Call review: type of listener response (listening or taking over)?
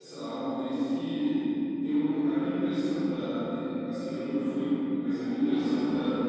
listening